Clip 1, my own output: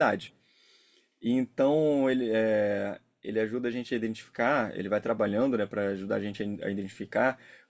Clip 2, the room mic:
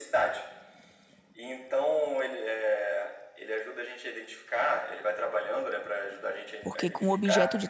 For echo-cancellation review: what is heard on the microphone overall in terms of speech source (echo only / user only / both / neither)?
both